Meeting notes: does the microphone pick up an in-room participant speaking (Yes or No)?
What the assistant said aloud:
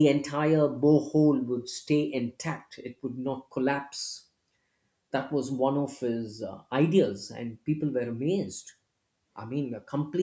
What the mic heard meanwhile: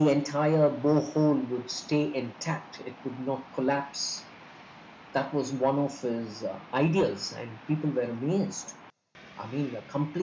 No